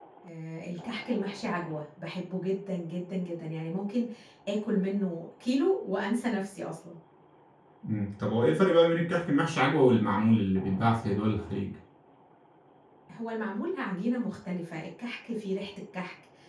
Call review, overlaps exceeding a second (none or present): none